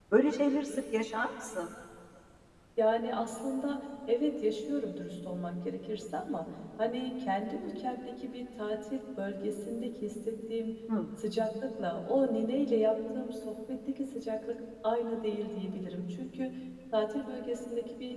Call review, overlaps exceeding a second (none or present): none